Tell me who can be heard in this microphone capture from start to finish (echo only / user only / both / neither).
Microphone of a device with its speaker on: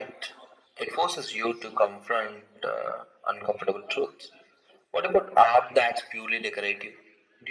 echo only